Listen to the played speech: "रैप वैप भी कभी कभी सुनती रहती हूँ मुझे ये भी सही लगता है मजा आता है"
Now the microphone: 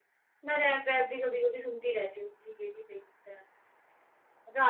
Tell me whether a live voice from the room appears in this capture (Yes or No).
No